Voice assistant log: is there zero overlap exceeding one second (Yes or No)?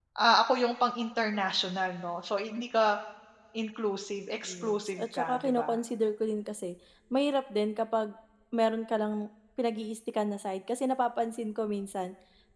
No